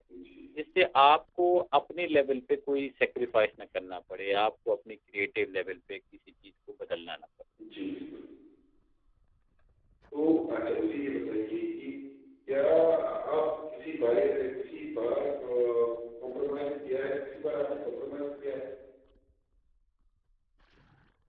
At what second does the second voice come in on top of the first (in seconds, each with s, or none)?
none